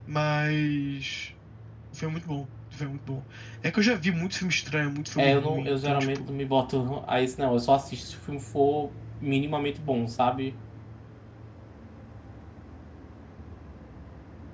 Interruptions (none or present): present